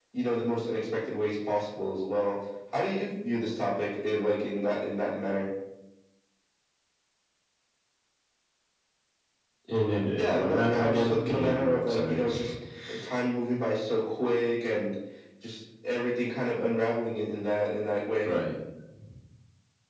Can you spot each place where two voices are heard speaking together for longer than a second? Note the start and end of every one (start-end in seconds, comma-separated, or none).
10.2-12.2